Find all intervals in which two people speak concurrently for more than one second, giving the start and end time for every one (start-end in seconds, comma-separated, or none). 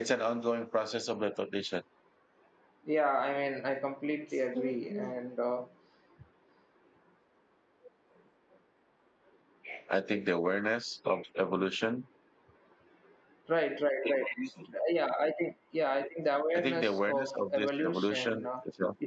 16.5-18.5